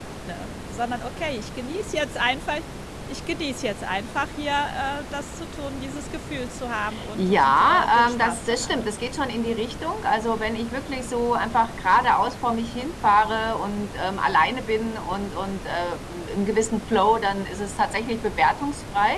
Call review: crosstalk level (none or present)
present